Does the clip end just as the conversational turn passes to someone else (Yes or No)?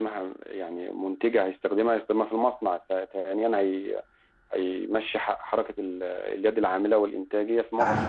Yes